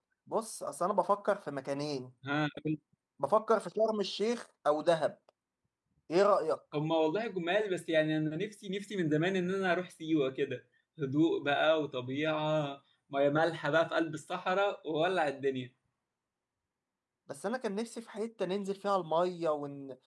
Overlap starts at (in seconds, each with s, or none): none